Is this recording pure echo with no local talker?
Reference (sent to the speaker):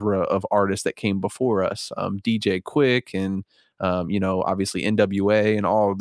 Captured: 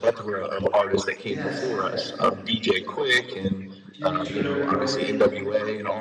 No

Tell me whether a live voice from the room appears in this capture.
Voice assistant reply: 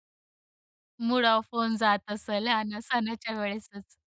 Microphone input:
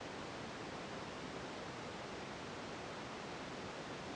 No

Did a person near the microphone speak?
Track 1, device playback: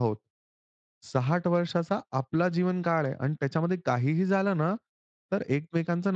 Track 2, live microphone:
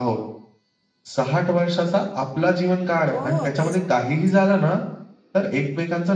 Yes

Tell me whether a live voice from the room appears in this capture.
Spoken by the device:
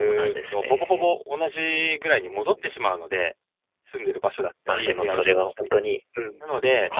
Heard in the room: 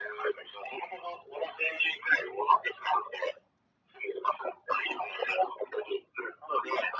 No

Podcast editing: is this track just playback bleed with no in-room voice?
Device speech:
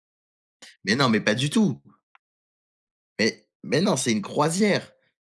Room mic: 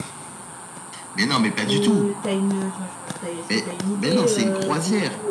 No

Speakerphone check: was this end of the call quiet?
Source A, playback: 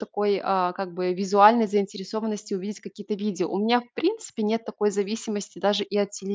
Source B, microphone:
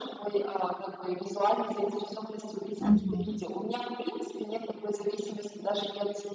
No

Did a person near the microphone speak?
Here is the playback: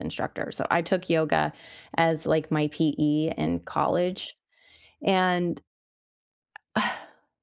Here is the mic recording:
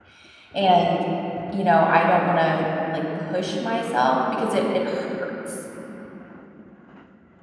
Yes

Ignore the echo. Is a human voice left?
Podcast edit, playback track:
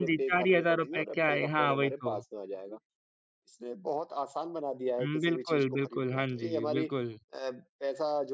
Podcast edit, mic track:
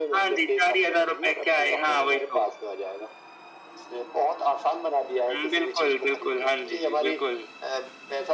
No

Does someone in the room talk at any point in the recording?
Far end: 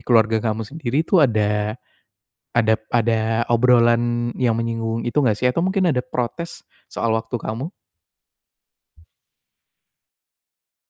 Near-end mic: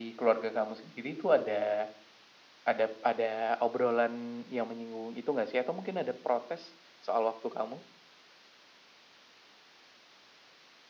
No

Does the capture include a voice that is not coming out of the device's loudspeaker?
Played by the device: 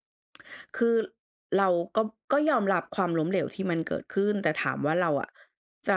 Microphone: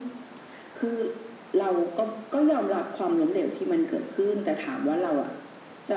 No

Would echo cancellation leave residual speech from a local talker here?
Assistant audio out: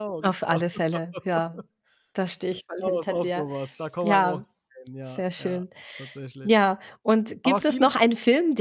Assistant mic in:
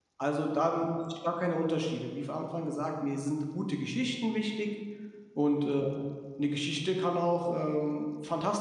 Yes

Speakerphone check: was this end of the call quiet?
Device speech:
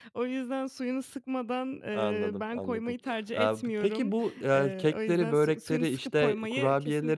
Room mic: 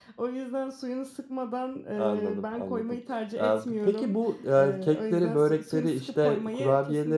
Yes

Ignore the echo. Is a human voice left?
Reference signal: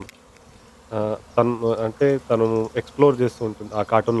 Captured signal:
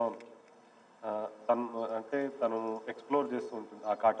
No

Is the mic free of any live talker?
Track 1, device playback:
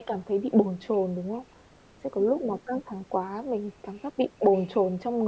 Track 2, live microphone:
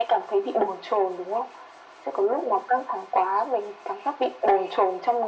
Yes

